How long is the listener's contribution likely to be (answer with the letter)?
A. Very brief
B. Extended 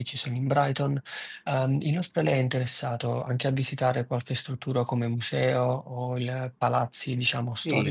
B